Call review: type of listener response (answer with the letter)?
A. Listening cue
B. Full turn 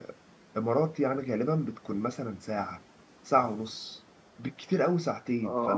B